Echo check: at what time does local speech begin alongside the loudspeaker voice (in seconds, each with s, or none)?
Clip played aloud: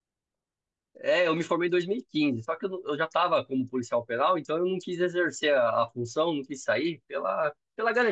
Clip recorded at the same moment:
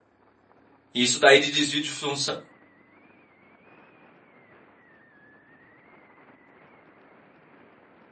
0.9 s